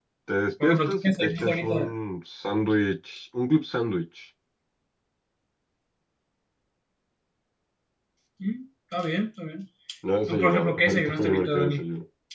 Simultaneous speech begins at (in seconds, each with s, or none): 0.6 s